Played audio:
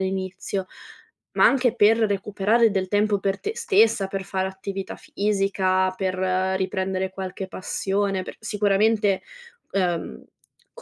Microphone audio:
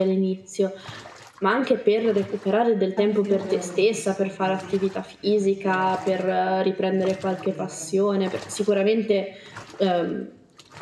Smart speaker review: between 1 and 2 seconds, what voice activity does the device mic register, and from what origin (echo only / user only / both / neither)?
echo only